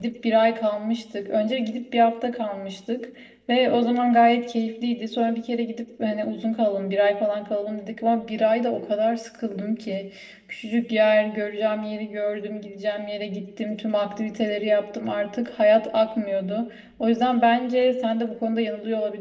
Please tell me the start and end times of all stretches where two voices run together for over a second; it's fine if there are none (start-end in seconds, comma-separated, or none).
none